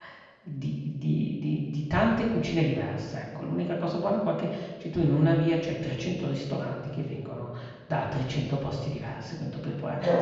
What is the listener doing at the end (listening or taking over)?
taking over